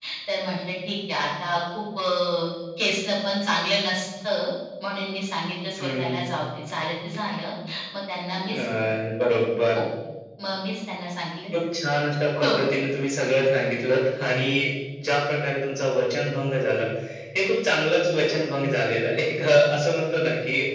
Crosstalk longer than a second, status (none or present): none